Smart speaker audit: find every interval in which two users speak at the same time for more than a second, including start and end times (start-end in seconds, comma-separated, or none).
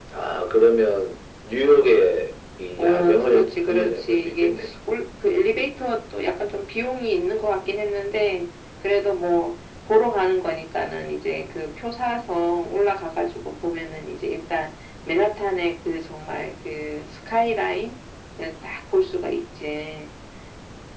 2.8-4.7